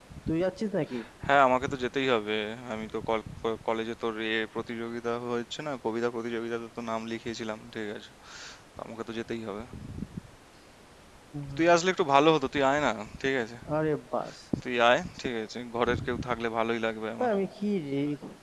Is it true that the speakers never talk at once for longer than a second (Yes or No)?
Yes